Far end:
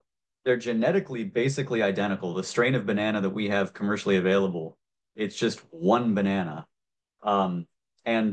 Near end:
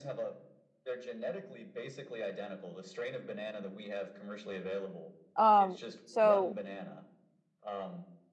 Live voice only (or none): Um, so